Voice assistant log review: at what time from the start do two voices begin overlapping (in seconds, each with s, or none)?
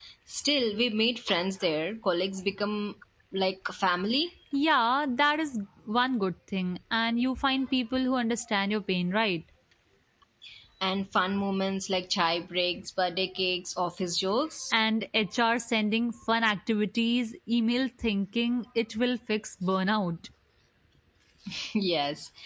none